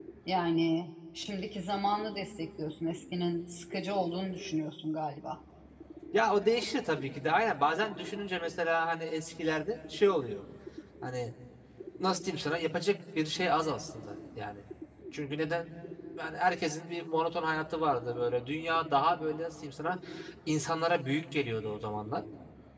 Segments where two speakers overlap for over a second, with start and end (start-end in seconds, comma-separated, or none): none